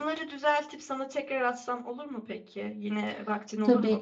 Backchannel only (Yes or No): Yes